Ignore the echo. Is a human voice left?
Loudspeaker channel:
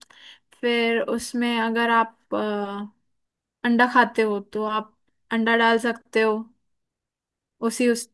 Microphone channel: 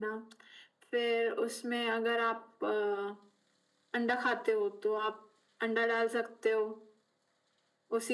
No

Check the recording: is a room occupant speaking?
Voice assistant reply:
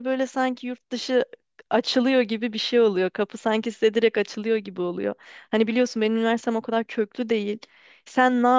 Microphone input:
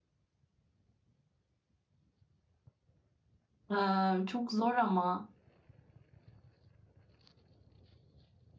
Yes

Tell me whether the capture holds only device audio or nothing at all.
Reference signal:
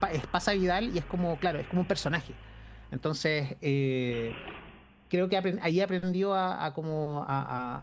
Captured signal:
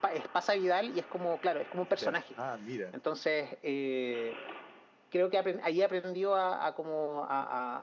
No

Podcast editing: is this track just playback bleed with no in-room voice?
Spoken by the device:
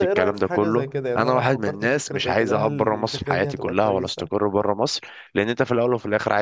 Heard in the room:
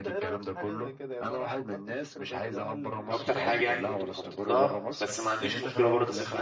No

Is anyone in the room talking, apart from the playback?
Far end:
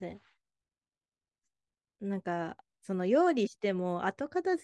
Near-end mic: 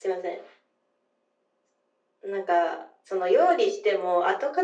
No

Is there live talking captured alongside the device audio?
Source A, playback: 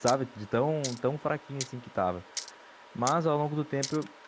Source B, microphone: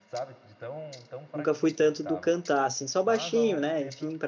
Yes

